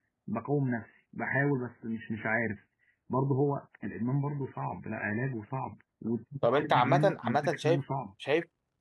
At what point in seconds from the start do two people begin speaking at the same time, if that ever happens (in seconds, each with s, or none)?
6.4 s